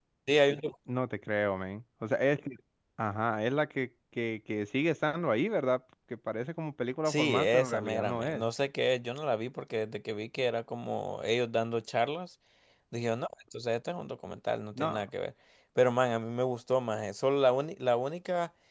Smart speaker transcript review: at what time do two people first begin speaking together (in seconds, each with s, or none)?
7.0 s